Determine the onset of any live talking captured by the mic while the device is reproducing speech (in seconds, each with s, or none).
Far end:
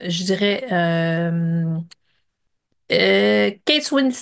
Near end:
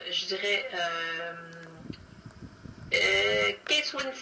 none